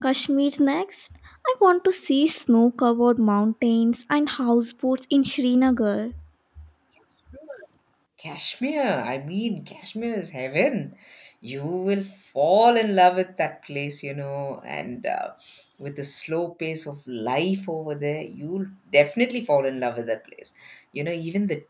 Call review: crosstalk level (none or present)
none